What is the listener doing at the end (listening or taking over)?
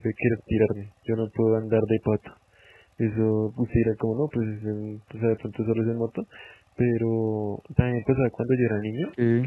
listening